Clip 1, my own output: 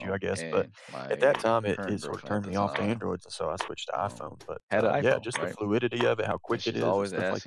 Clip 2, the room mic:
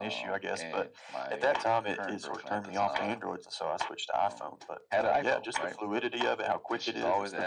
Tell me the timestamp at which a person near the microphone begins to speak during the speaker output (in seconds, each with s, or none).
none